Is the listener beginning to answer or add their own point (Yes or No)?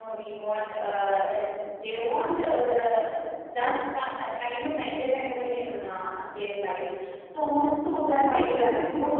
Yes